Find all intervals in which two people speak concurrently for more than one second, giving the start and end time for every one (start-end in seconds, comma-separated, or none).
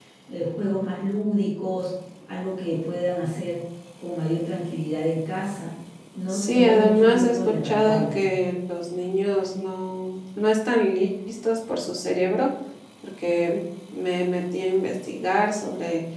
6.3-8.2